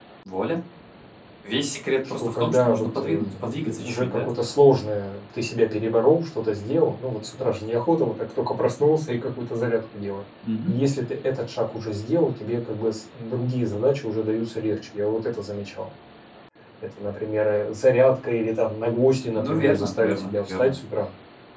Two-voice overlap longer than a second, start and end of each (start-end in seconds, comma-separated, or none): 2.1-4.3, 19.4-20.7